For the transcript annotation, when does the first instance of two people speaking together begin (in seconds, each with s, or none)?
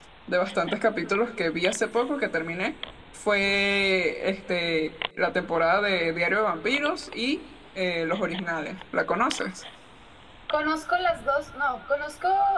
none